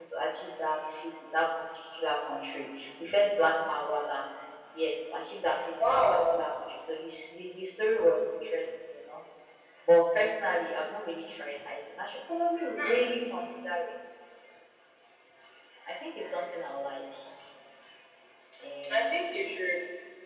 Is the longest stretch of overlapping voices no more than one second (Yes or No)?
Yes